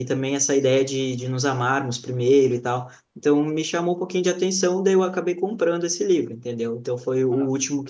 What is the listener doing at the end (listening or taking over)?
listening